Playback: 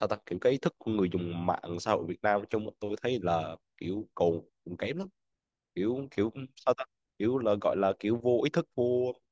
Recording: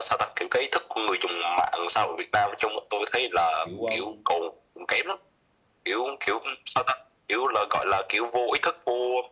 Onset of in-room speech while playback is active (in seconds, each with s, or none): 3.6 s